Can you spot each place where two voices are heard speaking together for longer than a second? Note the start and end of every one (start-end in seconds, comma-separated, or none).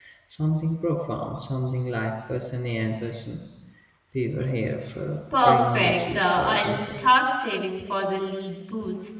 5.4-7.0